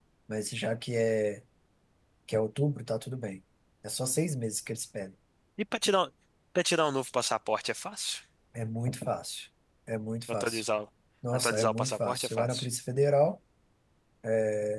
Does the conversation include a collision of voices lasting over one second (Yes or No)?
Yes